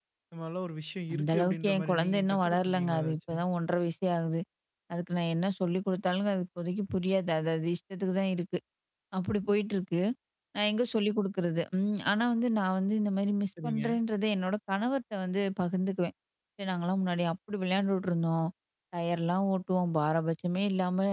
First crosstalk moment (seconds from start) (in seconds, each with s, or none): 1.1 s